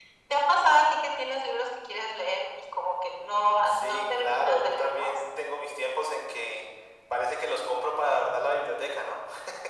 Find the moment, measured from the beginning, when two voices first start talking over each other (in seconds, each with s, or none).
3.6 s